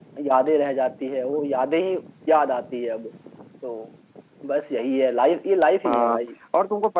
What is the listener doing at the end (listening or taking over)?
taking over